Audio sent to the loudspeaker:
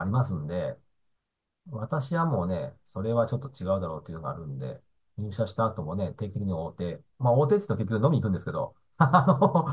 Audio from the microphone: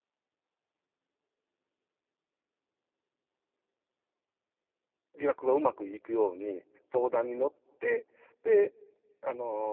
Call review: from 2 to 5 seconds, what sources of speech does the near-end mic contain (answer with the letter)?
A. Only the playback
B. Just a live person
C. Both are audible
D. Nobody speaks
D